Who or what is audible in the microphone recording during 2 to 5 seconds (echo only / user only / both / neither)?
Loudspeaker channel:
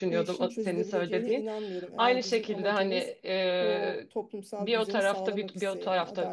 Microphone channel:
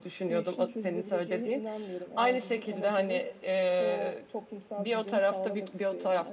echo only